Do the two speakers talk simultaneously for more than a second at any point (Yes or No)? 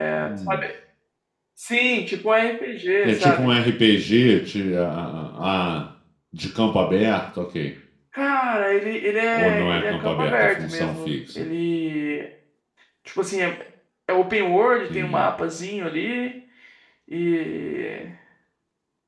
Yes